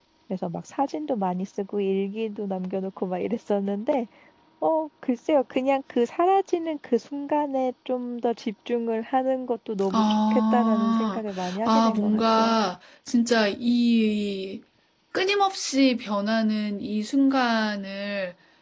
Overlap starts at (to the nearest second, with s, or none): 10 s